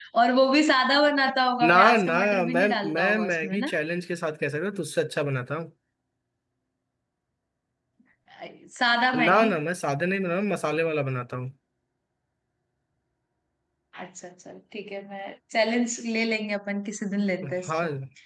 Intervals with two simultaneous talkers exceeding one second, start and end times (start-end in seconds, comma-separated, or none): 1.6-3.7